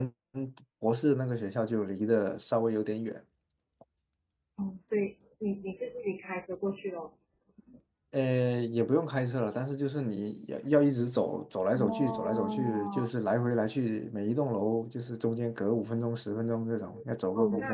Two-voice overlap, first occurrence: 11.8 s

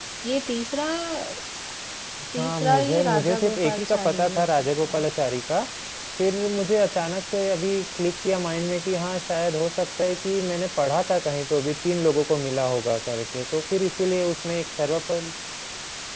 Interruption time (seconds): 2.4 s

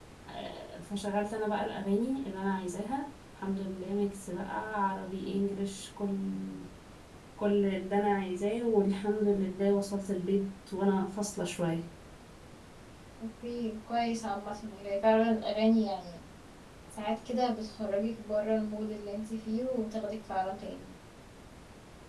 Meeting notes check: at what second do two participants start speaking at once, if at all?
none

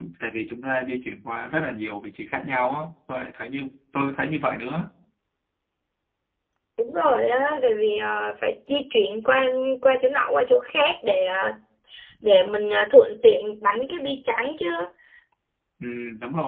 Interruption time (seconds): none

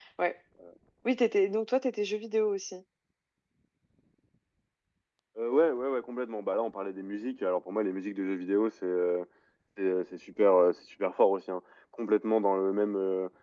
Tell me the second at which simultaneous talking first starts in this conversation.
none

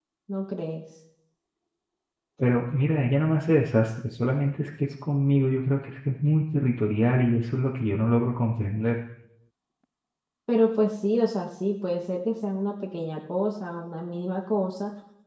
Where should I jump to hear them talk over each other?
none

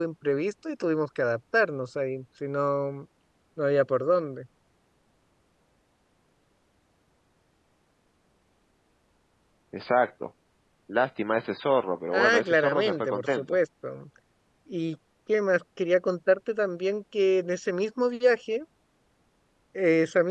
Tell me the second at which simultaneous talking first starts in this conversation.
12.1 s

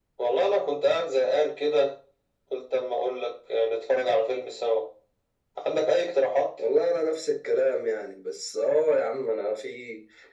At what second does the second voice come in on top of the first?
none

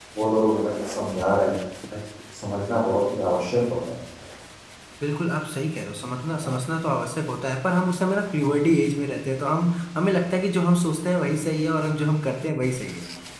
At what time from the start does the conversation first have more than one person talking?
none

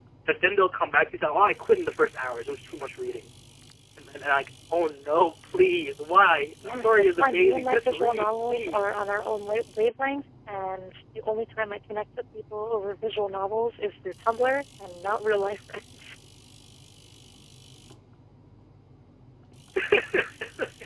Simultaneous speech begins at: 6.6 s

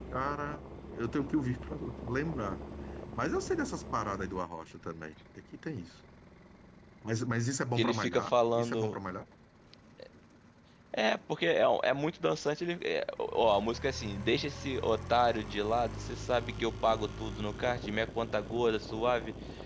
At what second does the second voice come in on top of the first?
7.8 s

